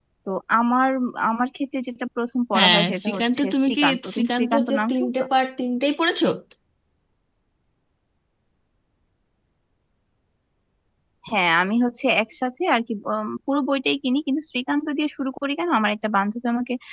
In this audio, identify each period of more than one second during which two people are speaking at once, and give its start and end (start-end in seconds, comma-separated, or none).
2.6-5.2